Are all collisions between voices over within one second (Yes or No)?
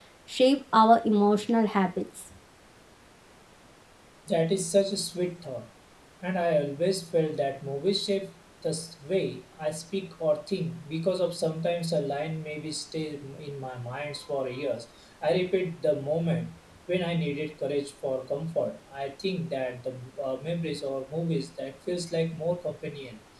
Yes